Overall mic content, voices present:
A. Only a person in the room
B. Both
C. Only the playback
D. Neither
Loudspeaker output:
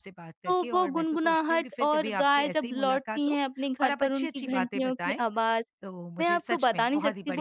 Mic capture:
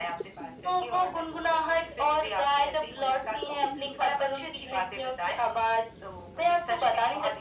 C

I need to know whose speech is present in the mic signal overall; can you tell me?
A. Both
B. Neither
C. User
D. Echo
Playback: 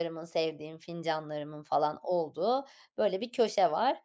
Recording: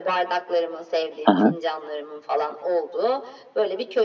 A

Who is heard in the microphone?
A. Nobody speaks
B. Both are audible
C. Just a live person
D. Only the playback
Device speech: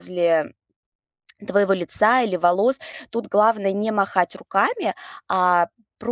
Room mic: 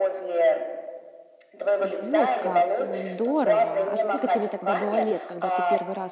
B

